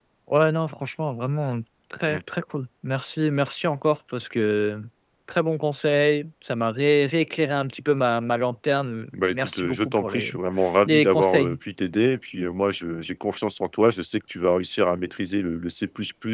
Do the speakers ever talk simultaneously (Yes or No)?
Yes